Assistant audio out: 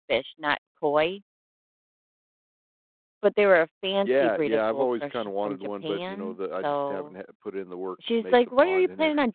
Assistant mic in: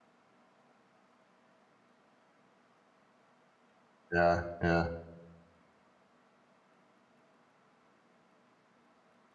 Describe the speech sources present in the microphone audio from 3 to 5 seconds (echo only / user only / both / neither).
user only